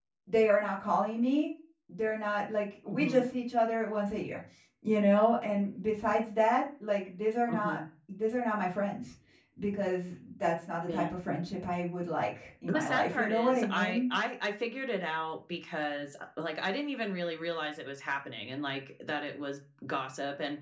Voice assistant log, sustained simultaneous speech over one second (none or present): present